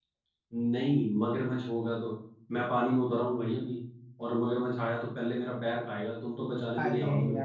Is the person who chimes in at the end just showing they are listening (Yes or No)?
No